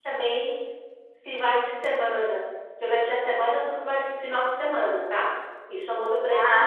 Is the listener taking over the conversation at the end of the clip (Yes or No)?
Yes